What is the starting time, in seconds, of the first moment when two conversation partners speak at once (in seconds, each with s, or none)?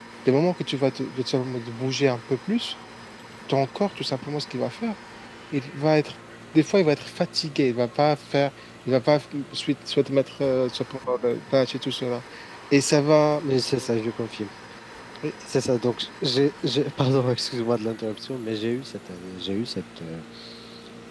none